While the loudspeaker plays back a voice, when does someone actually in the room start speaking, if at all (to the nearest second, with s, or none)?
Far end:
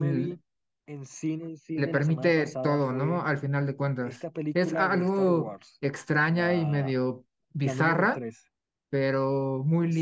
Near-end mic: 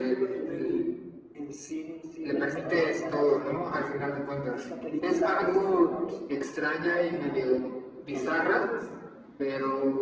none